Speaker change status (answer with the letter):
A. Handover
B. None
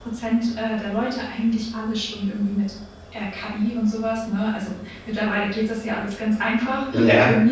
B